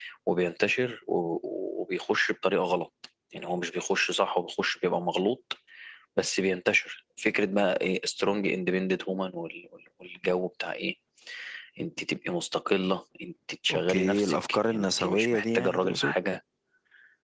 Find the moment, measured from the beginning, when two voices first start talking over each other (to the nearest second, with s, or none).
14 s